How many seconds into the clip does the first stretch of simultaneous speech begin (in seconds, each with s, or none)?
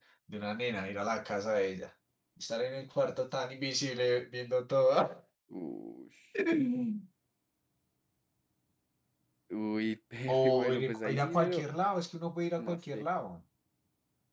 10.4 s